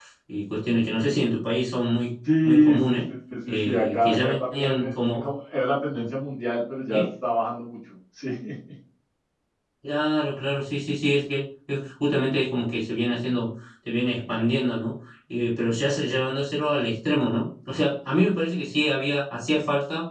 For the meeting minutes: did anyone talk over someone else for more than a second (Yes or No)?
Yes